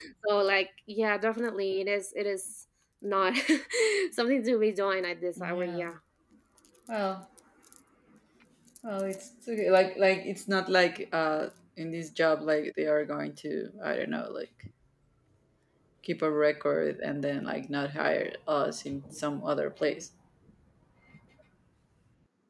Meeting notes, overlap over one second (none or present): none